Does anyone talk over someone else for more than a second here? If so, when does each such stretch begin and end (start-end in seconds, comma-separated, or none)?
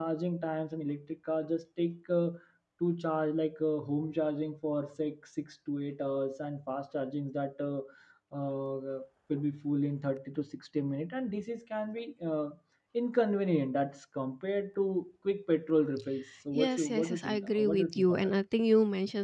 16.5-18.3